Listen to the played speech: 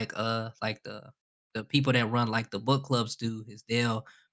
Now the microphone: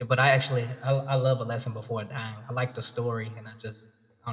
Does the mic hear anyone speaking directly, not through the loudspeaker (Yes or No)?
Yes